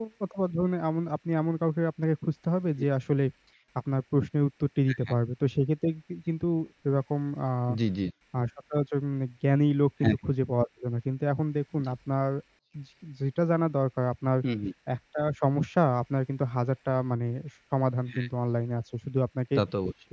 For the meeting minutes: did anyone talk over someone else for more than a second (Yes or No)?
No